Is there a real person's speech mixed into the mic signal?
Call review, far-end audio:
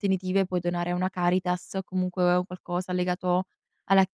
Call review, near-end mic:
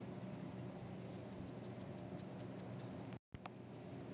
No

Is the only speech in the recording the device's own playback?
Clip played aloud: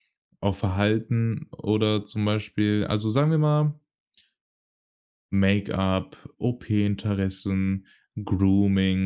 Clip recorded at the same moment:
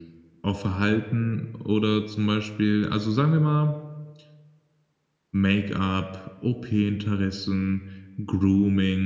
Yes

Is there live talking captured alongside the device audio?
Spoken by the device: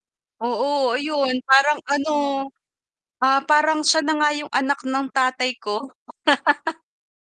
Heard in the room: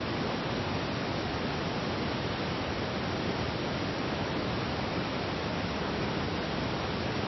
No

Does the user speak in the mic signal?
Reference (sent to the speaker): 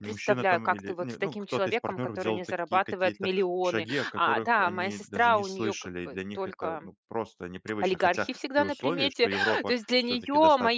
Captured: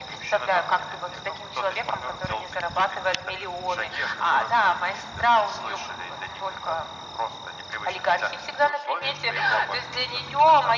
No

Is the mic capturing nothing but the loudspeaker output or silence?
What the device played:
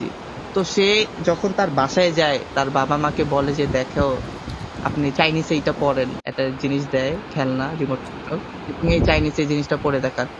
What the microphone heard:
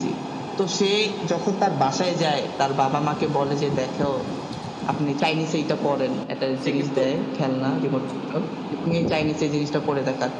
No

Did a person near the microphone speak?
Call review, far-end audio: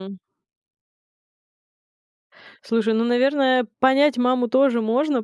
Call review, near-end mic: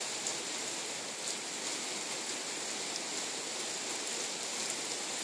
No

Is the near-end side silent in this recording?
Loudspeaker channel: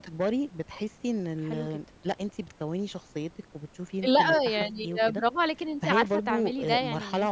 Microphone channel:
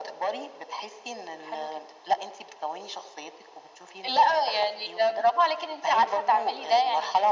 Yes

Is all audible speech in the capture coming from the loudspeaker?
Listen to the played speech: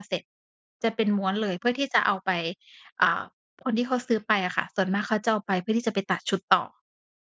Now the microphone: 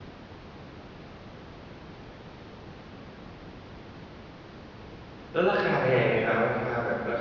No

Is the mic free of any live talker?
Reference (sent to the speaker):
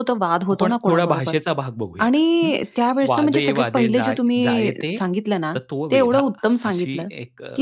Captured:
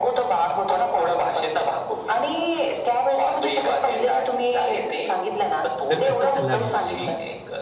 No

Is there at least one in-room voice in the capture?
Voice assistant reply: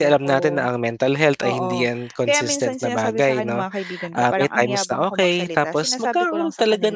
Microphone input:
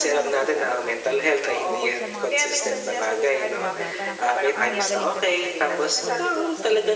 Yes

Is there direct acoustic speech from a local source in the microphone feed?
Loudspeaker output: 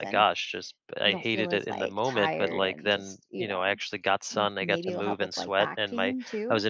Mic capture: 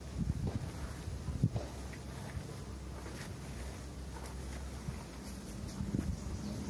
No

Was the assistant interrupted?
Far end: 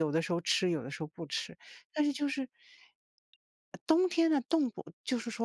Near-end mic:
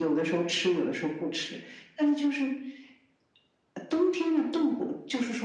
No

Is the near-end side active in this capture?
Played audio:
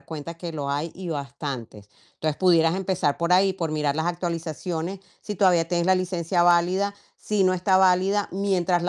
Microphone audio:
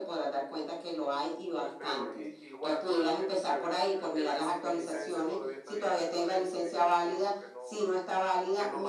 Yes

